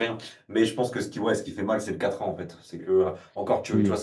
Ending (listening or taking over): listening